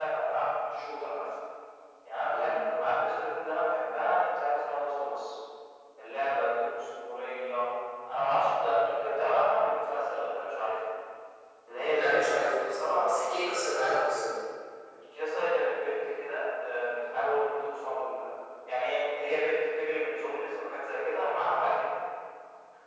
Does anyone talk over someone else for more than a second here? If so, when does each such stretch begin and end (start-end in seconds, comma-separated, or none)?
11.9-13.2